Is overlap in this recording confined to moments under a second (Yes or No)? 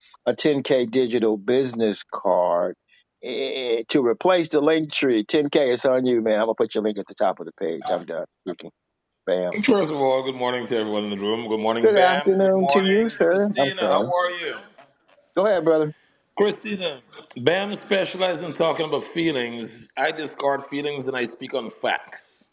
No